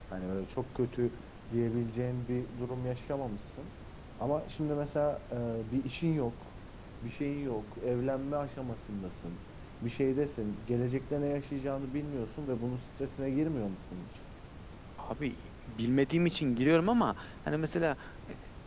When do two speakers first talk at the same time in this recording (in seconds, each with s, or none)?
none